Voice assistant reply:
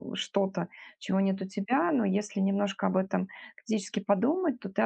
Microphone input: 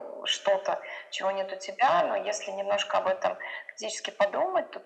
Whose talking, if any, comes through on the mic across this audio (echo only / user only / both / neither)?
echo only